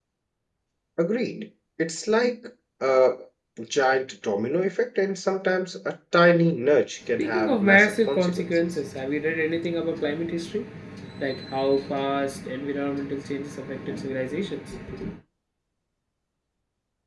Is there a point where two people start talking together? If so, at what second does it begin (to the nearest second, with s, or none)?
7 s